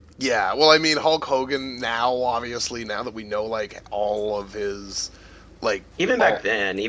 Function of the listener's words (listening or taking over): taking over